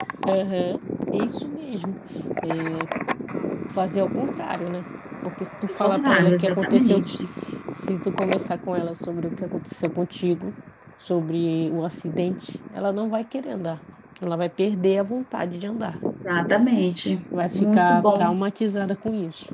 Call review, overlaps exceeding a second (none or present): present